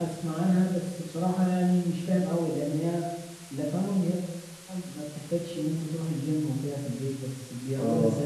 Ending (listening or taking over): taking over